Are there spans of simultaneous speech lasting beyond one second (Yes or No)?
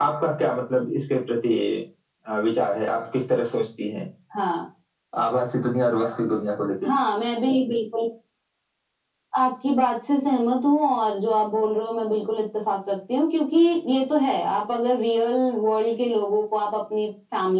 No